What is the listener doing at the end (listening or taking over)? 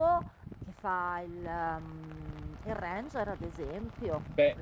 taking over